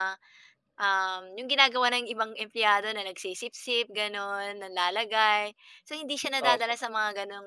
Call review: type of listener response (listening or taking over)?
listening